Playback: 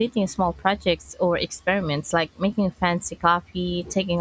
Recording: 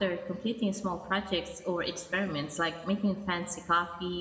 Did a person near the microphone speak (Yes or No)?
No